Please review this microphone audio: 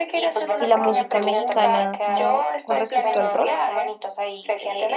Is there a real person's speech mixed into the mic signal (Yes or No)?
Yes